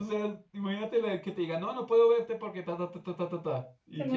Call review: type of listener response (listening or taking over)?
listening